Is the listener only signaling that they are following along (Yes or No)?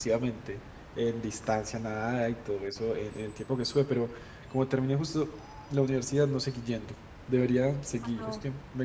Yes